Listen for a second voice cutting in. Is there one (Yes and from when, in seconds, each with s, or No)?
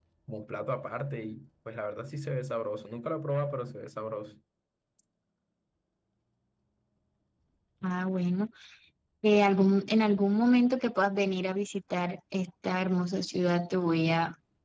No